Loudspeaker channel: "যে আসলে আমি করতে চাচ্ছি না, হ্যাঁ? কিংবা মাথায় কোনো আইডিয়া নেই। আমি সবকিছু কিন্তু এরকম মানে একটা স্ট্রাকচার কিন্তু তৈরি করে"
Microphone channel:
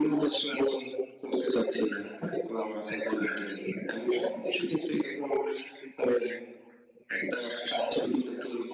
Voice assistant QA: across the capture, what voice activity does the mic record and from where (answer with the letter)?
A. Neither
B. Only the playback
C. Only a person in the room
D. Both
B